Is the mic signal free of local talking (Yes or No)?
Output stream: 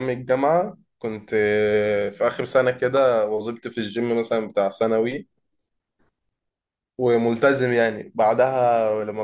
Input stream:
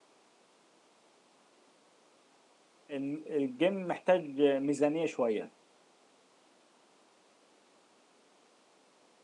No